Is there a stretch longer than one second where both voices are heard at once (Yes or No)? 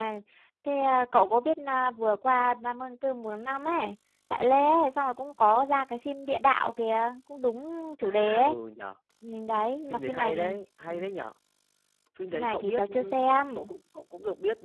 Yes